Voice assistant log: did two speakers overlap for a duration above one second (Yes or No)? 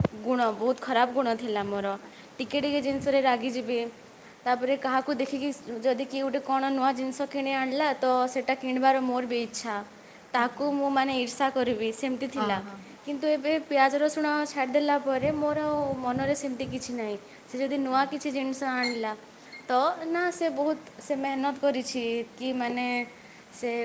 No